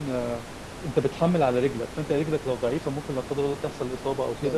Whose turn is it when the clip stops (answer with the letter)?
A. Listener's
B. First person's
B